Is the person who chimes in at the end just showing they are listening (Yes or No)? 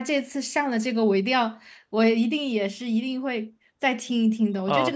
No